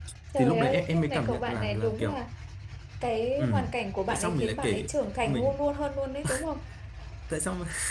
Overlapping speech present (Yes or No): Yes